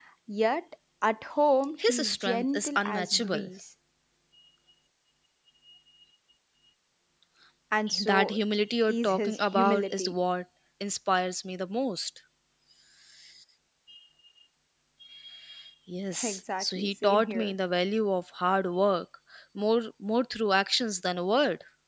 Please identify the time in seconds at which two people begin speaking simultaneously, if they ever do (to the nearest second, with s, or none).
2 s